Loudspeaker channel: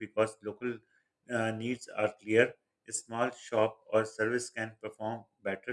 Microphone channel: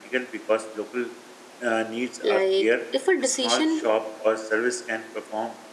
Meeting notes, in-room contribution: present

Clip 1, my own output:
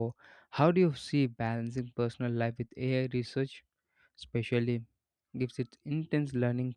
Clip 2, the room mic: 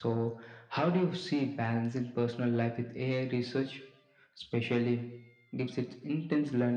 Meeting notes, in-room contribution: none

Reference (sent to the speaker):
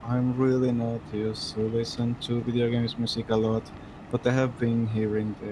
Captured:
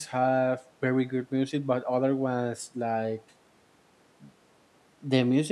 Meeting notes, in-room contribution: present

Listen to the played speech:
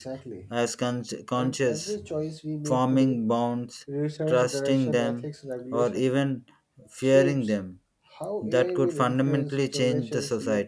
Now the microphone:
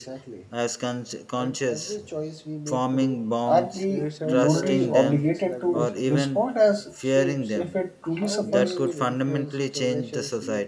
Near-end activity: present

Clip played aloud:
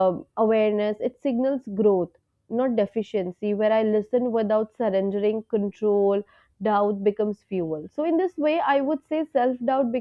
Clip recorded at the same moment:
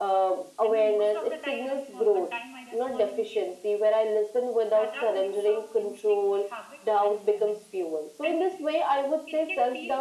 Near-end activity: present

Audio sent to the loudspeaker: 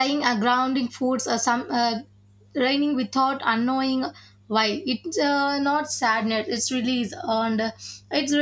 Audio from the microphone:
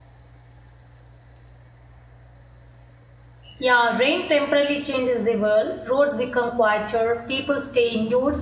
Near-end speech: present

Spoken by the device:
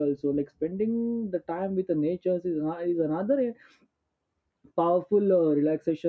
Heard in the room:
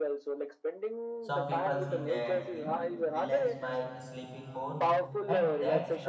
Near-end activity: present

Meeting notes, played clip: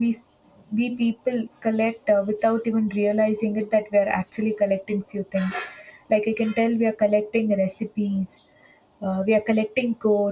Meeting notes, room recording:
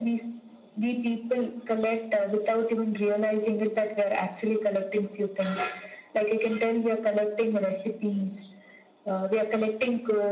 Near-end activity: none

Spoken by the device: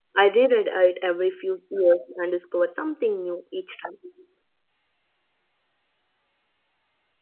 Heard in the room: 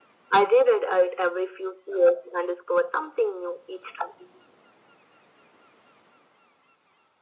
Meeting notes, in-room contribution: none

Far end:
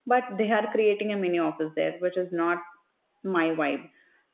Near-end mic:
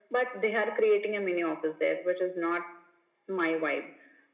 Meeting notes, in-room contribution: none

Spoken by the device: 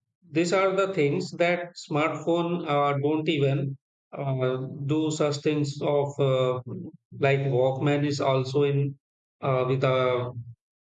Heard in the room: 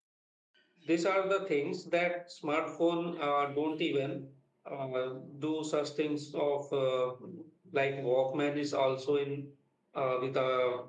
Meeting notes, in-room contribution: none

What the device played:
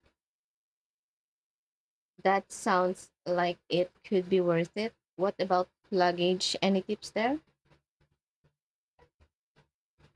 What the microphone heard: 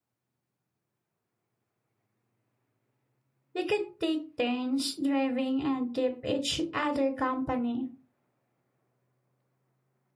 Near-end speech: present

